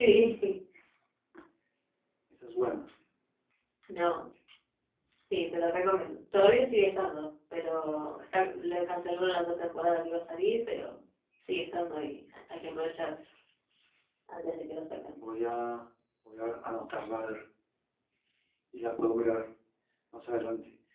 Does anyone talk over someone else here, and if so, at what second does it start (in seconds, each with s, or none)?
none